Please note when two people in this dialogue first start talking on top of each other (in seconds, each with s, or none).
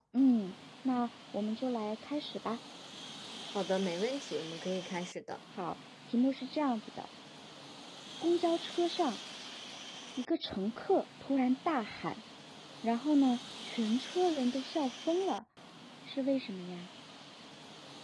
none